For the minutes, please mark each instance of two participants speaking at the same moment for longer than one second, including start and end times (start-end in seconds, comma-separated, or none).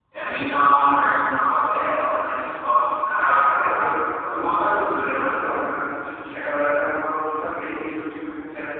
3.2-5.6